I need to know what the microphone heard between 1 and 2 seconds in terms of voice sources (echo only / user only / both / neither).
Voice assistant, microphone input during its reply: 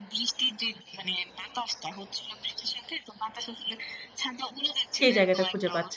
echo only